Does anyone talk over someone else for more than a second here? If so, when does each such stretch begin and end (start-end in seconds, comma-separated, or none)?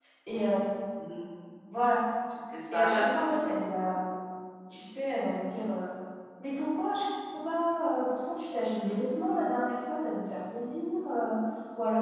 2.7-4.0